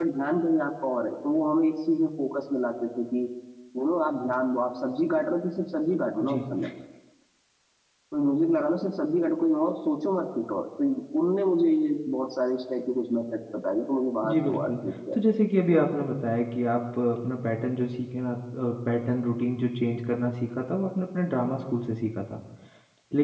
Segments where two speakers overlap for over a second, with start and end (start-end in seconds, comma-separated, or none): none